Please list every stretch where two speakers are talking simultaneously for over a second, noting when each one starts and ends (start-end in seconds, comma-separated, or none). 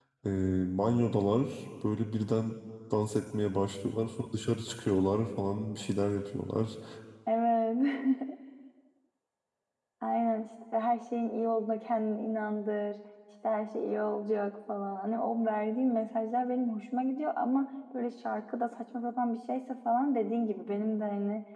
none